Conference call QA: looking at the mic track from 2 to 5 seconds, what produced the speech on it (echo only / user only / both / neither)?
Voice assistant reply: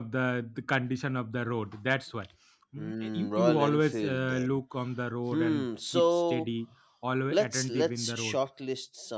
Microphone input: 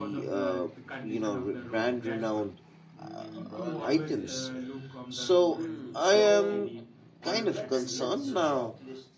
both